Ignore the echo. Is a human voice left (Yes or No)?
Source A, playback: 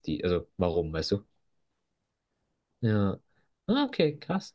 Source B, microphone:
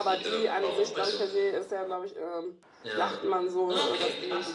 Yes